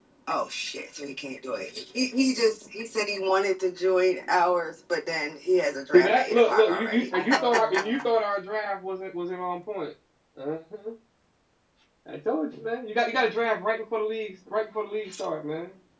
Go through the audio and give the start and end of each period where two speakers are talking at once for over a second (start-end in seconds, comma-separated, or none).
5.9-8.2